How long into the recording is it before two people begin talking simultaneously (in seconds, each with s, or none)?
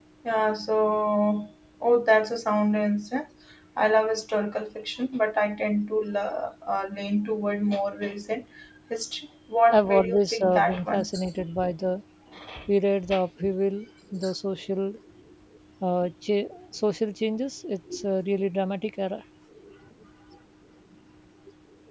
9.7 s